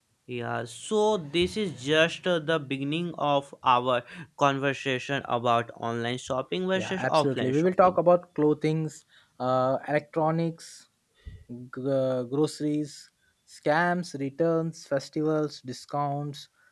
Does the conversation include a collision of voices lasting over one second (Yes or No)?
Yes